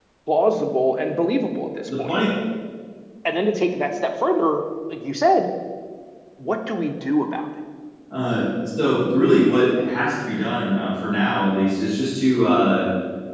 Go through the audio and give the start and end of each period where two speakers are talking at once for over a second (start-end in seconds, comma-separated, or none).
none